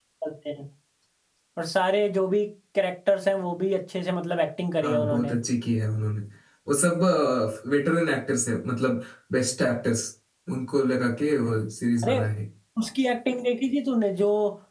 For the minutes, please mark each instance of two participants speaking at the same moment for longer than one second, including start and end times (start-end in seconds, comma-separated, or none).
none